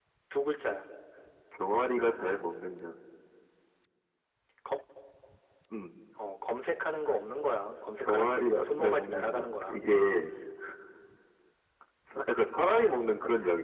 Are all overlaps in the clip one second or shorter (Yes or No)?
No